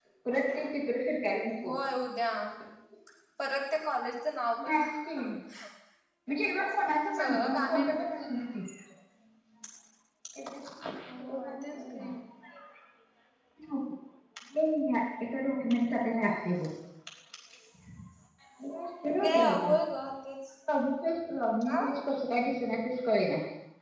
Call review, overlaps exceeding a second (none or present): present